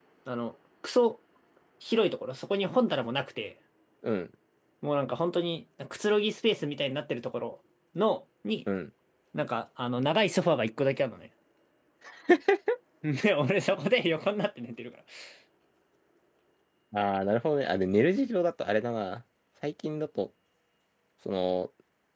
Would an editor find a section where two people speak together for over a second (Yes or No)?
No